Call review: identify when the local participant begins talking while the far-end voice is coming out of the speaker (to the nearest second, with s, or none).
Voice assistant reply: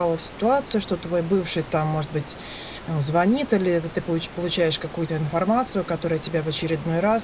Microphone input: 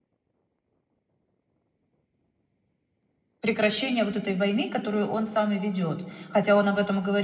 3 s